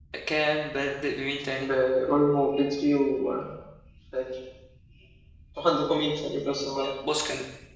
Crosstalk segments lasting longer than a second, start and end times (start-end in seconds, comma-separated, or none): none